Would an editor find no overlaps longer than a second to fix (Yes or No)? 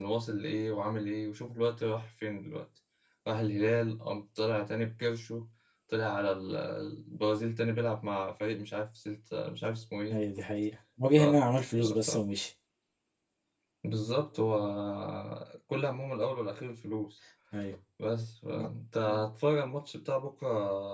Yes